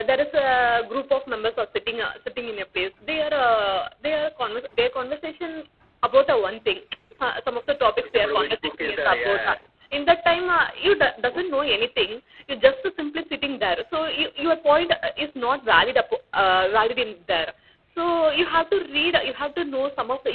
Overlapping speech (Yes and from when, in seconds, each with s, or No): Yes, from 8.1 s